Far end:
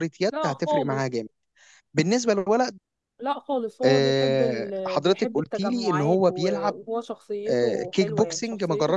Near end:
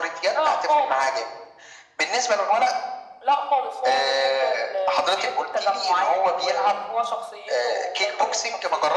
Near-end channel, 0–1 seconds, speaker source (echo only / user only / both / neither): echo only